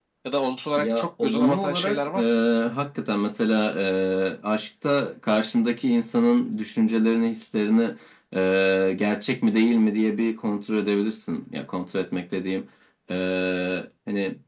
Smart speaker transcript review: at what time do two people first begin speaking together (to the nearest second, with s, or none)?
1 s